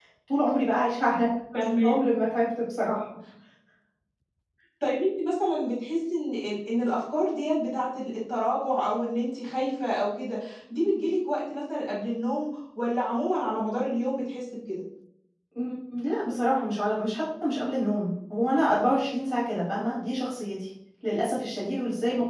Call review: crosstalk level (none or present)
none